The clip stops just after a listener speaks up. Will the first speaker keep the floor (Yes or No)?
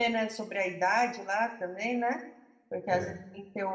Yes